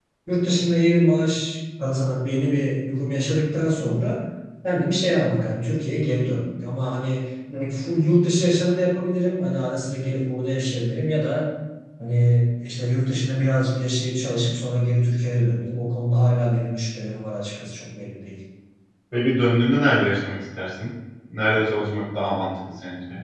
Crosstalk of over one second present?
No

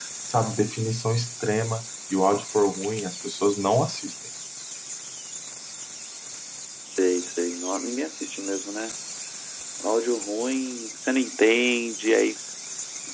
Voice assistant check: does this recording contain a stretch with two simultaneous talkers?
No

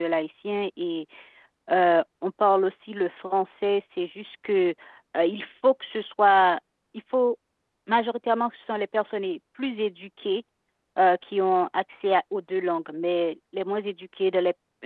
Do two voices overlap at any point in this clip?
No

